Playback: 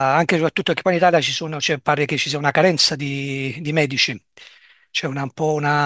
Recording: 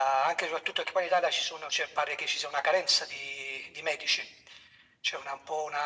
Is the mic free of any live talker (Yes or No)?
Yes